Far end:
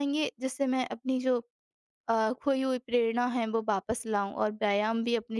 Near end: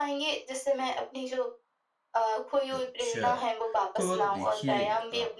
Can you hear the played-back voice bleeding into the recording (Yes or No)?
Yes